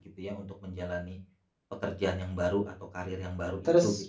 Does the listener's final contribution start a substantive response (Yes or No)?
Yes